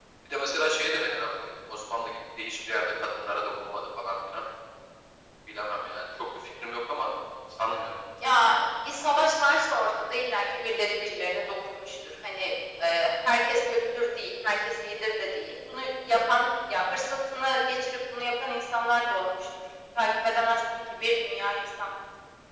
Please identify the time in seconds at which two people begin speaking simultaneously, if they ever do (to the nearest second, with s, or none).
none